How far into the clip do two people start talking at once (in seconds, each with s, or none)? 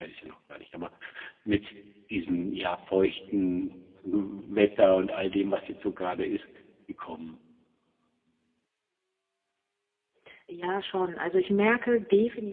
none